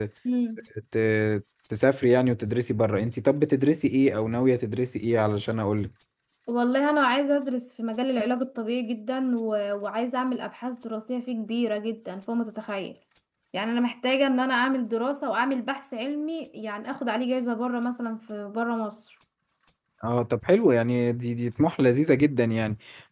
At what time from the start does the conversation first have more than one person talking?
none

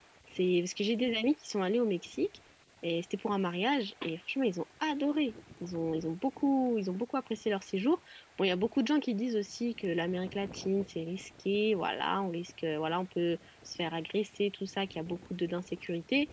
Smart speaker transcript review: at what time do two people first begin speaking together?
none

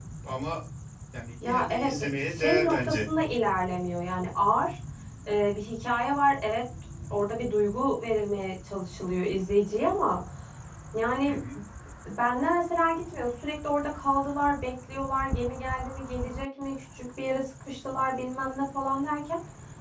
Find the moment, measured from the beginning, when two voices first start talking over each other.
1 s

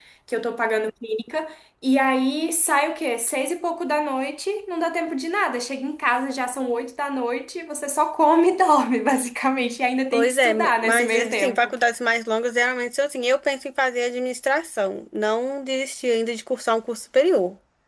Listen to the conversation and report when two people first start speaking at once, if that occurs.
10 s

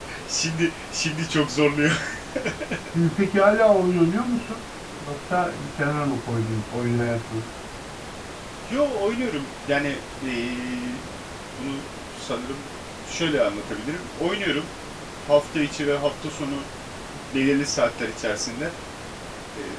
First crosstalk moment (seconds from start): none

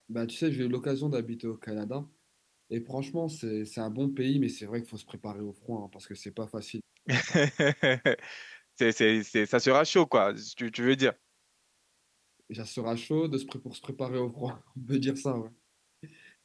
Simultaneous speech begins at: none

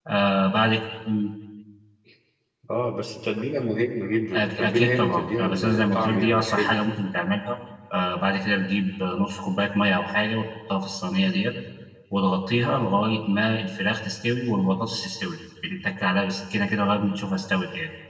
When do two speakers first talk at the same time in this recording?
4 s

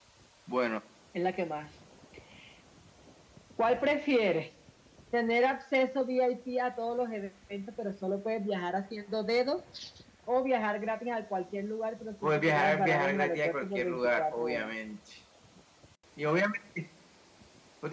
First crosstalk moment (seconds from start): 12 s

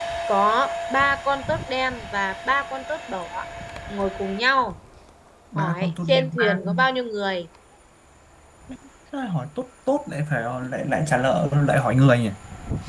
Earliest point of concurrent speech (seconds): 6 s

